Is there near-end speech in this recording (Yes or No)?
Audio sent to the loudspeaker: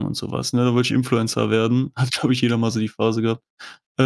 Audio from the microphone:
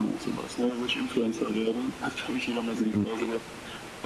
Yes